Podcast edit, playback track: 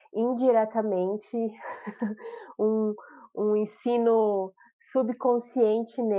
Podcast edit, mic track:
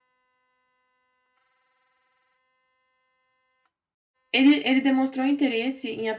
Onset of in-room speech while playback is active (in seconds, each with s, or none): 4.3 s